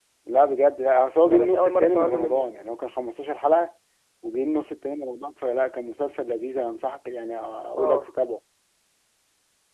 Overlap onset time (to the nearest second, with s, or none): 1 s